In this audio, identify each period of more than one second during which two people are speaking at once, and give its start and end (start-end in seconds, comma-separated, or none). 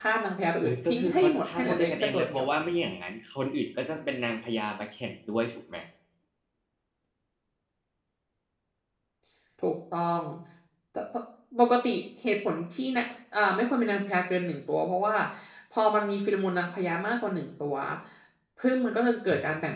0.6-2.5